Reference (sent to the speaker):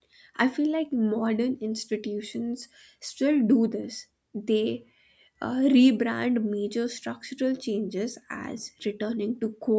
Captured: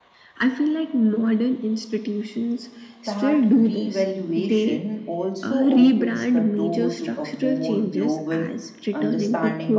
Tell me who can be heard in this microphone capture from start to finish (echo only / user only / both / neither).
both